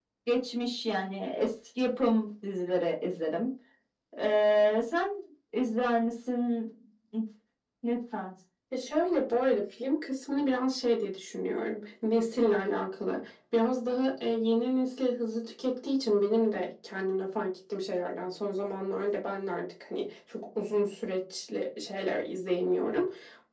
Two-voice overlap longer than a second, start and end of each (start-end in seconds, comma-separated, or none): none